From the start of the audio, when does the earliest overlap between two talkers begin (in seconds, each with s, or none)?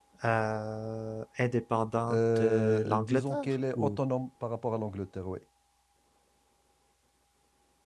2.1 s